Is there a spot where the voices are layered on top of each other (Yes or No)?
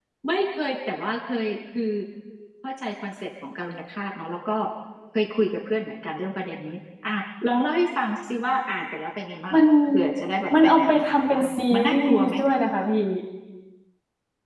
Yes